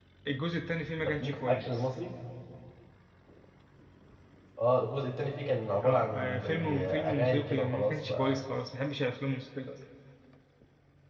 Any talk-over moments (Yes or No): Yes